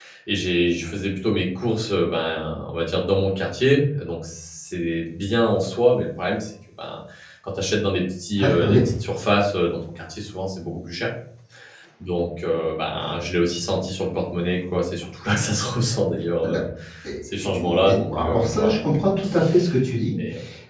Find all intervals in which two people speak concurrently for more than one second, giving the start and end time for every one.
17.4-18.8

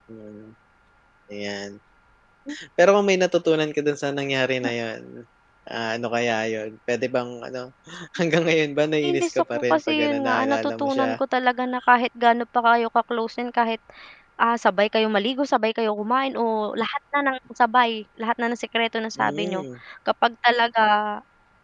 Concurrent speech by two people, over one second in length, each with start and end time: 9.0-11.2

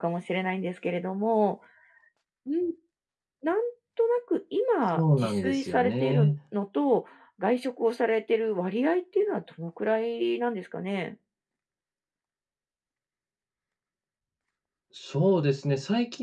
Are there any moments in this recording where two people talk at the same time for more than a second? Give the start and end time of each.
4.9-6.3

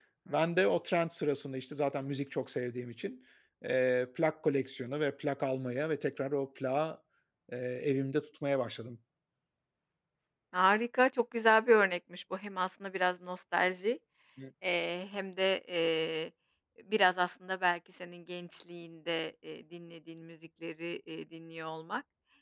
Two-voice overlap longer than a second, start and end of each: none

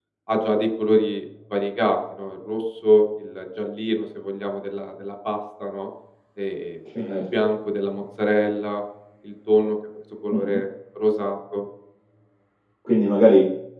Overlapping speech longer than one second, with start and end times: none

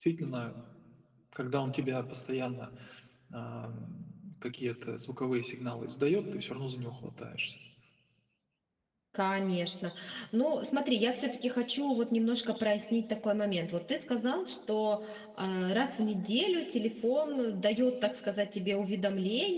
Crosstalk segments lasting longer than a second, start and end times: none

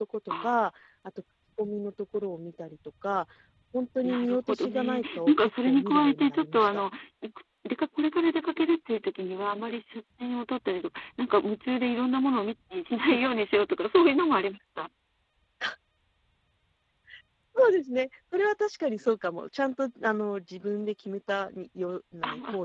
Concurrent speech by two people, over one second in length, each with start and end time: 4.0-6.8

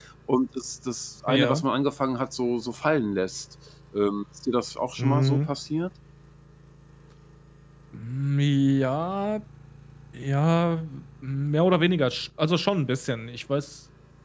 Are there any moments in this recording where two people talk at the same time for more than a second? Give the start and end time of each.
none

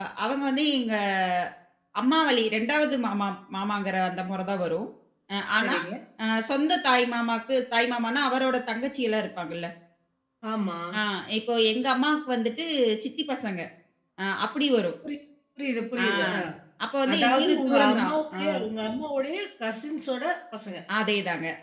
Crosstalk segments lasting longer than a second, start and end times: 17.1-18.4

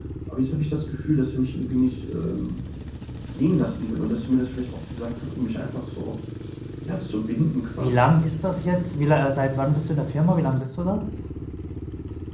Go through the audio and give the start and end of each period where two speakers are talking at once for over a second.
none

